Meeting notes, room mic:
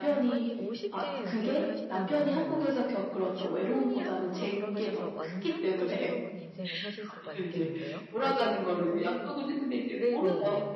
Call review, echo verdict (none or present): present